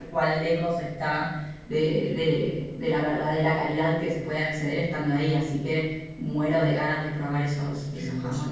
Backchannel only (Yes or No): No